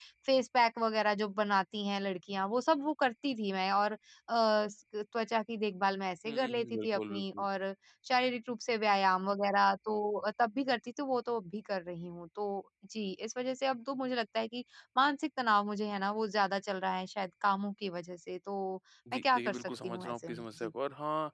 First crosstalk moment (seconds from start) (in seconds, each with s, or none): 6.2 s